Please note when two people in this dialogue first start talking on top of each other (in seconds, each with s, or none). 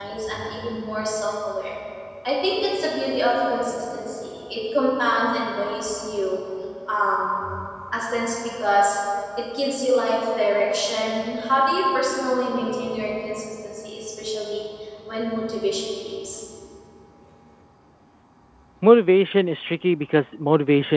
none